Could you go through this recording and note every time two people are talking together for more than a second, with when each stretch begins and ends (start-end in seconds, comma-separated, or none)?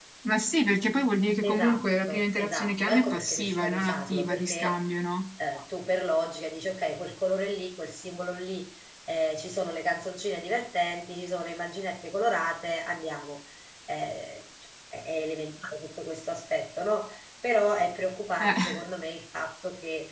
1.4-4.8